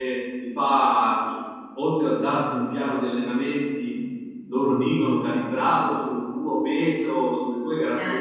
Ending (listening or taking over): listening